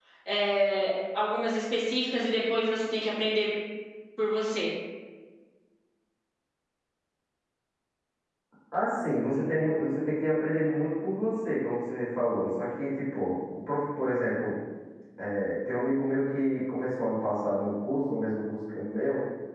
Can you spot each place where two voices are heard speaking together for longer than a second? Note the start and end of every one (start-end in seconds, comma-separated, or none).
none